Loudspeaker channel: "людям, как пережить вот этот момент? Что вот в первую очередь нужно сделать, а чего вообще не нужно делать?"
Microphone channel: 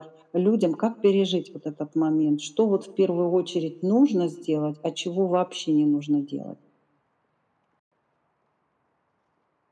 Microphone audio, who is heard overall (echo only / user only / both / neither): echo only